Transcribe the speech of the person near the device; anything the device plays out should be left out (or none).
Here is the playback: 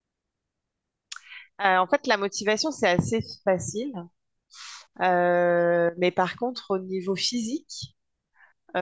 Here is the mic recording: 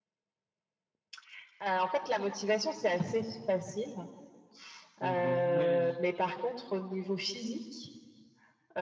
C'est vrai. Mais je-